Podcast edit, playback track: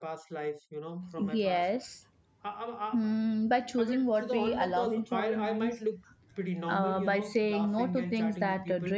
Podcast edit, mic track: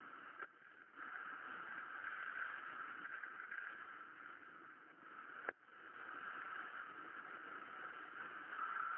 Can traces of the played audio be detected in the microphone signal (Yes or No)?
No